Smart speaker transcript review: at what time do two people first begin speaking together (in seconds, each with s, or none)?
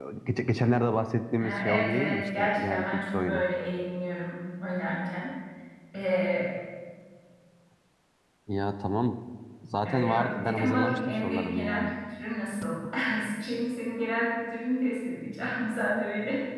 1.4 s